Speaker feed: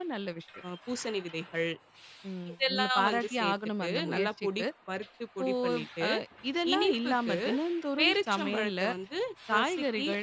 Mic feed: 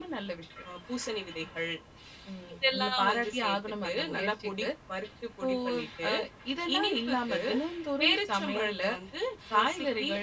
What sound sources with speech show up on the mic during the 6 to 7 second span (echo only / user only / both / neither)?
echo only